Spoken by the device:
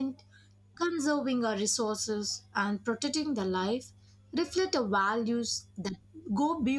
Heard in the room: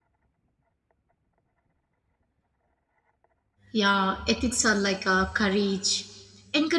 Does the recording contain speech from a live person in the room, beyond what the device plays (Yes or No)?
Yes